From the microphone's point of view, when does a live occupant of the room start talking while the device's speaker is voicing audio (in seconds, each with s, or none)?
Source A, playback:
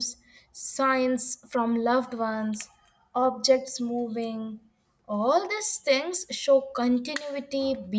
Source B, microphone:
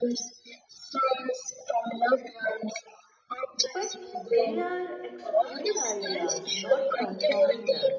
3.7 s